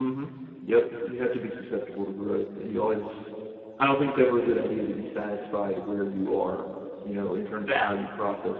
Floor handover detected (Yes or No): No